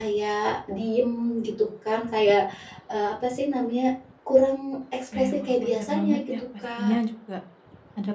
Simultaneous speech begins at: 5.1 s

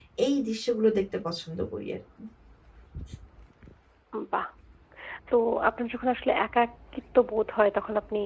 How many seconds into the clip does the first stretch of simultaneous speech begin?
none

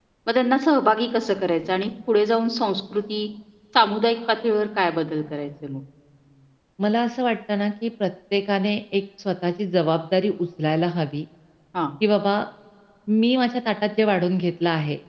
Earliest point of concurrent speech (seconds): none

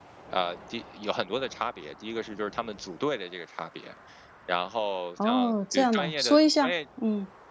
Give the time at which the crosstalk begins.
5.2 s

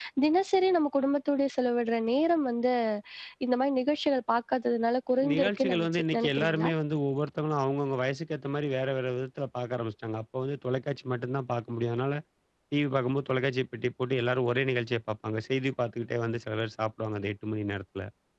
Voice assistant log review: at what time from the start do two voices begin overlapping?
5.2 s

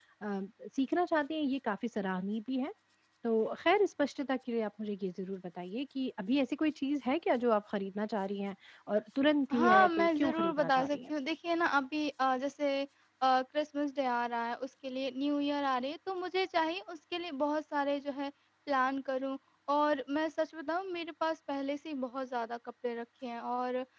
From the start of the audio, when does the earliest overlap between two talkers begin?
9.5 s

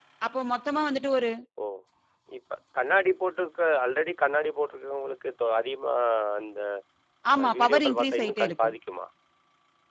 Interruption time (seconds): 7.4 s

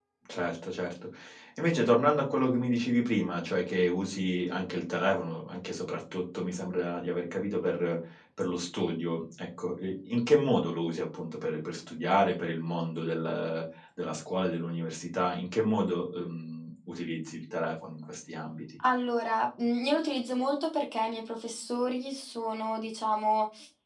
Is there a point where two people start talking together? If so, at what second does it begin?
none

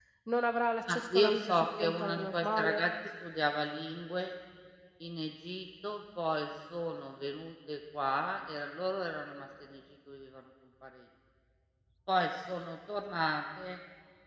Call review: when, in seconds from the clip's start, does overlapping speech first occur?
0.9 s

